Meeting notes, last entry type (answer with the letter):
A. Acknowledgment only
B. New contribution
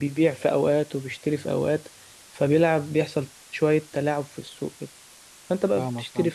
A